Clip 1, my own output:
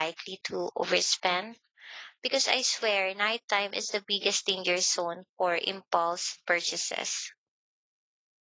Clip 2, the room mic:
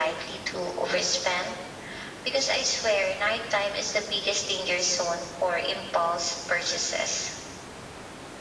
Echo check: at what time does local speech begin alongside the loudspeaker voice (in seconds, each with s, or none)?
none